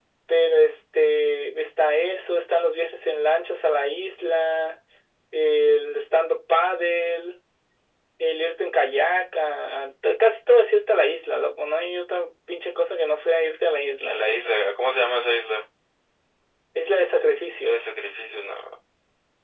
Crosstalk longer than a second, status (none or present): none